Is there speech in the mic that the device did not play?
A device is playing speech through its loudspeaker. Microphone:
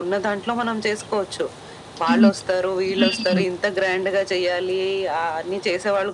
Yes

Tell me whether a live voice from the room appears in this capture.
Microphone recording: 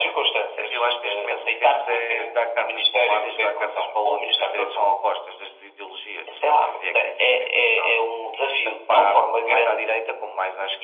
No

